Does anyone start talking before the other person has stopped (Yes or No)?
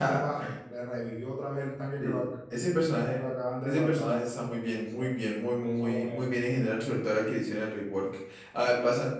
Yes